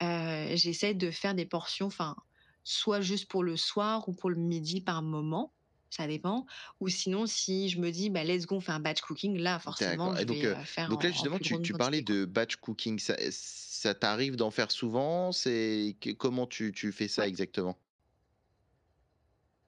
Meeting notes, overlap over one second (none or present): present